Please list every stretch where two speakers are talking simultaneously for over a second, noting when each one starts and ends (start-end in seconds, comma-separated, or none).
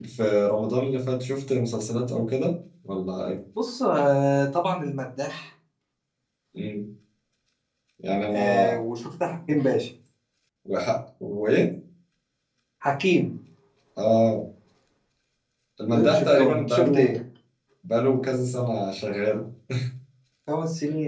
15.9-17.2